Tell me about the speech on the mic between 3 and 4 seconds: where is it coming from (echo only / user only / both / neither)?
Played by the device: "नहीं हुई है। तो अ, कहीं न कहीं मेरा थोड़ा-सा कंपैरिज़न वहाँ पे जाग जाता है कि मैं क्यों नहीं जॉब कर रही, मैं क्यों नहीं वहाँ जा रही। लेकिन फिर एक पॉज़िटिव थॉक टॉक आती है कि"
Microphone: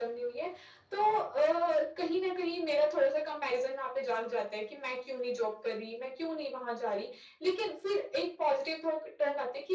echo only